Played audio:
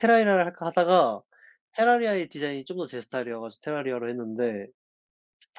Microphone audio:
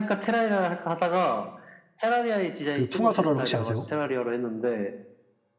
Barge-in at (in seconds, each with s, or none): 2.7 s